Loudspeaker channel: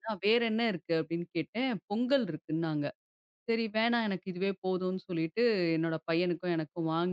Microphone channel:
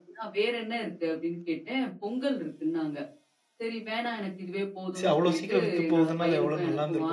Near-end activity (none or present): present